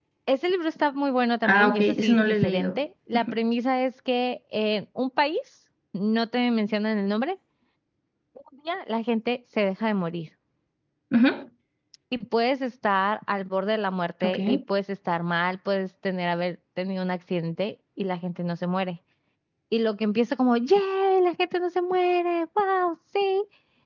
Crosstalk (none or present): present